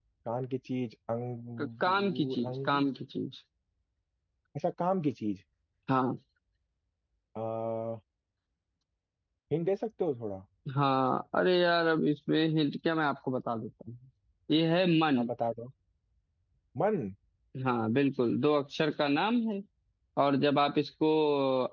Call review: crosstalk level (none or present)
present